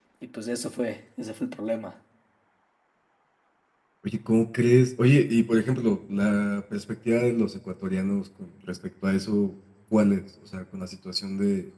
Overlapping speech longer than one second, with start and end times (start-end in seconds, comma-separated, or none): none